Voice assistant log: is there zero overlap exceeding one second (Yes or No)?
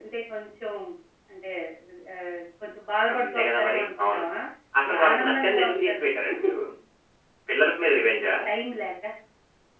No